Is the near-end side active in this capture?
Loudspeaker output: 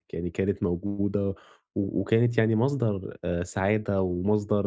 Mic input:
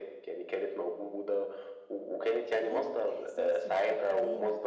Yes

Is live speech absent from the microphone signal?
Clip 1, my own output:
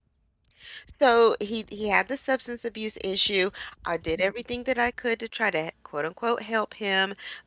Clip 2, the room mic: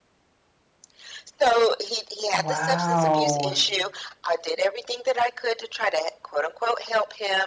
No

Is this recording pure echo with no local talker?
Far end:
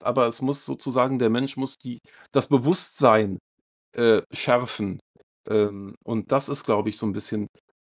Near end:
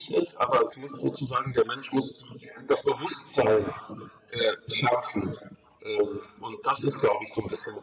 Yes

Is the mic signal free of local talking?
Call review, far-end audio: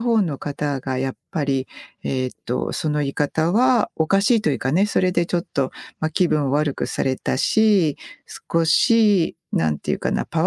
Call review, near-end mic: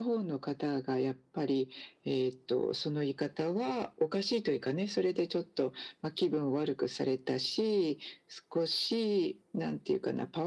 Yes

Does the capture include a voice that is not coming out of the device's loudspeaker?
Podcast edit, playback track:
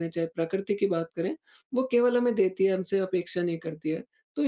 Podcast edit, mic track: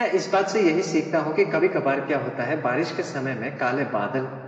Yes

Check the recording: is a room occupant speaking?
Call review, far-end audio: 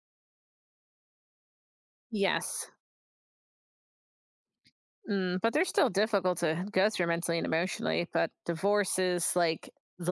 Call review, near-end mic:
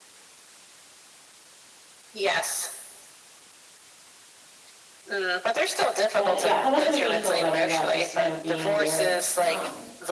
Yes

